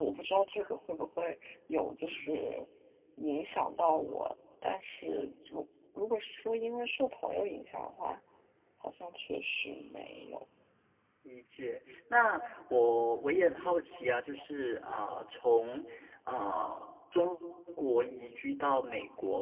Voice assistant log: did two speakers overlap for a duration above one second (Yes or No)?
No